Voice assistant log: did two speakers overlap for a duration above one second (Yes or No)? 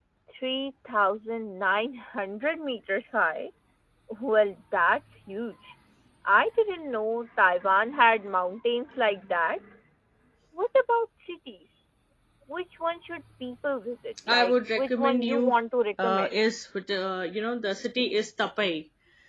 Yes